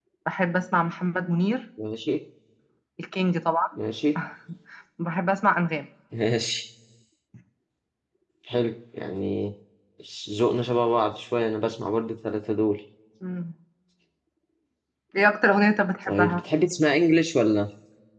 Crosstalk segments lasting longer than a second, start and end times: none

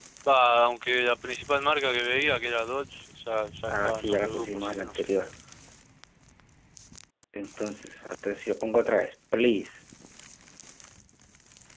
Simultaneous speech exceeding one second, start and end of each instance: 3.7-5.0

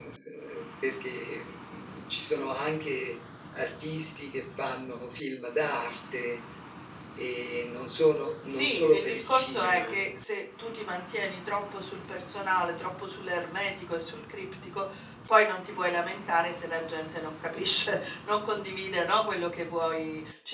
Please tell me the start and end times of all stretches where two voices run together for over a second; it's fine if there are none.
8.5-10.0

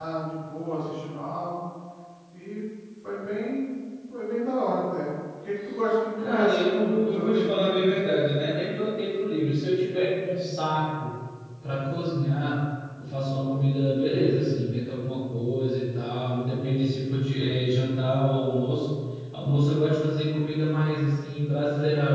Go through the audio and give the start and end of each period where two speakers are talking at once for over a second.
6.2-7.9

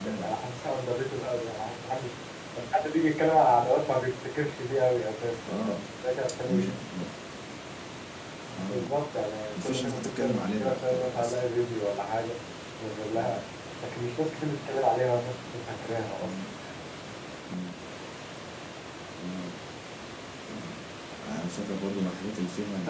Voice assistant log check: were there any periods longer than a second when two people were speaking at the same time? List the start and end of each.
9.6-11.4

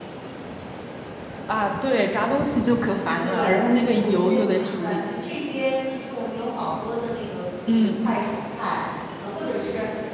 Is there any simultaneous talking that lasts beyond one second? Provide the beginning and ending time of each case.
2.9-5.1

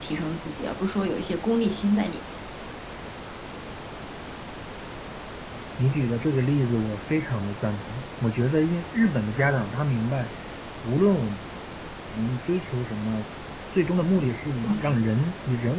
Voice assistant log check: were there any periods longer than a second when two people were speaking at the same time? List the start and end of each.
none

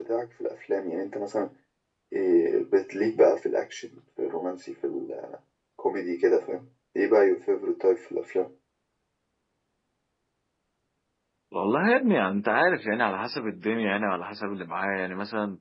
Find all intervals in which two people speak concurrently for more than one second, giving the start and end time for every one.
none

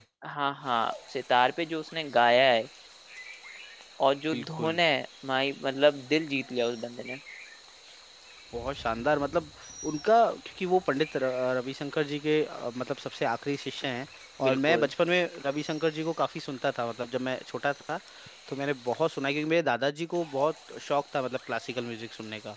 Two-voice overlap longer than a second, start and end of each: none

